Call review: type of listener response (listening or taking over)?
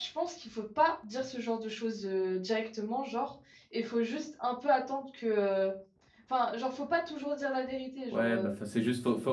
taking over